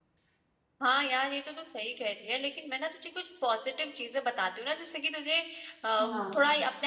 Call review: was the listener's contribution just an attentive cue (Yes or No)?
Yes